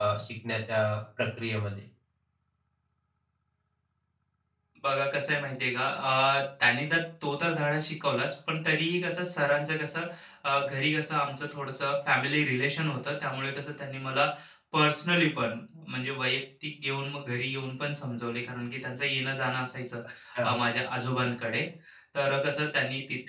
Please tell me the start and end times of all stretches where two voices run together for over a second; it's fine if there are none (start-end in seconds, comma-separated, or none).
none